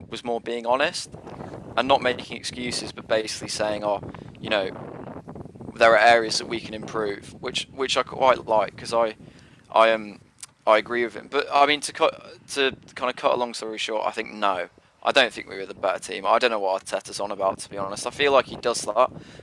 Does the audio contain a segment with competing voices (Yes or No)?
No